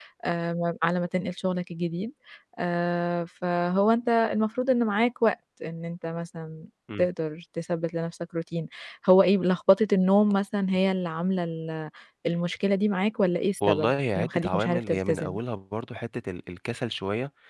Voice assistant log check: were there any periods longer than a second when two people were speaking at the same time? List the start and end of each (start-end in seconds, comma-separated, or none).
13.7-15.4